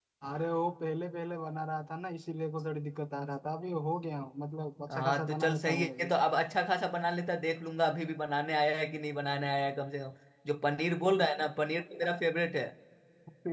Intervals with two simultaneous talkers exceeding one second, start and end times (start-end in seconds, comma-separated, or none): 4.9-6.1